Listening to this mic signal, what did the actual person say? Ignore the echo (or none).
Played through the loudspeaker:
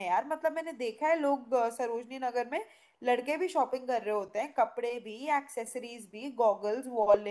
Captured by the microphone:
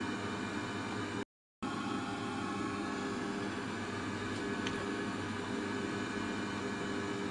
none